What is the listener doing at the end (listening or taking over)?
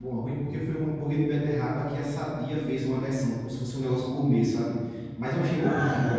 taking over